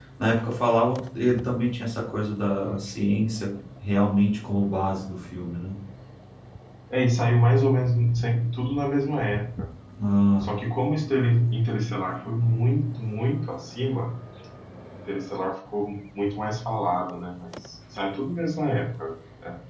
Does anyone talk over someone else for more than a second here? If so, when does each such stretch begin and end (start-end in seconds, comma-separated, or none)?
none